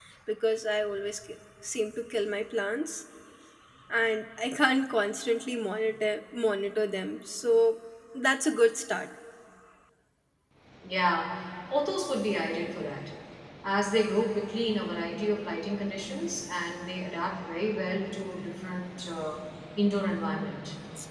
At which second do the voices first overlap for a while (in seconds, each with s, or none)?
none